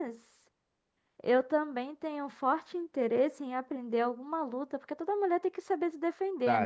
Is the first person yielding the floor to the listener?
Yes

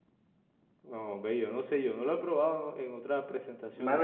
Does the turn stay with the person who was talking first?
No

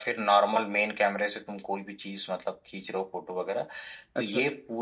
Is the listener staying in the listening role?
Yes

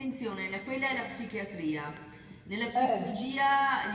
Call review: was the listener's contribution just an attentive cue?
Yes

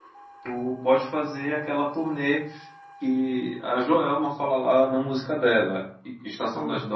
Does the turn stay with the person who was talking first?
Yes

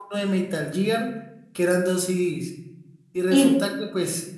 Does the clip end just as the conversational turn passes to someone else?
No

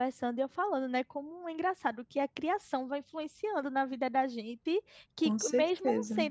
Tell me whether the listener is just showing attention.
Yes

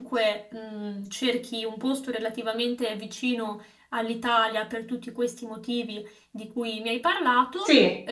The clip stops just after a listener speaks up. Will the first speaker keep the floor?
Yes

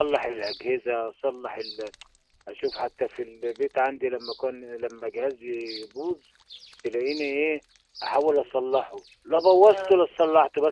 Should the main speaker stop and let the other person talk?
No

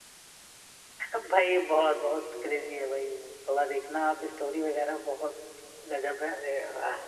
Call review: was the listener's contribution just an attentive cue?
Yes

